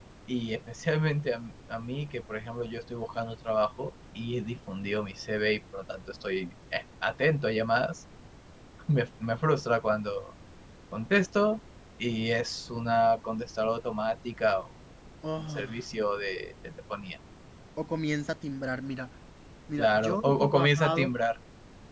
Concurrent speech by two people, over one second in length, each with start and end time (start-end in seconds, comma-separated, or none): 19.8-21.1